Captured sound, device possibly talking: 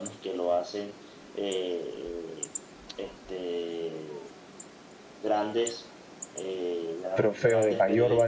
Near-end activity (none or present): present